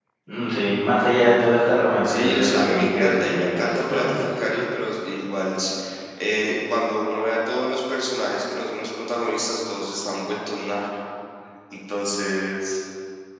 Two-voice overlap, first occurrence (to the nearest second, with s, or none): 2 s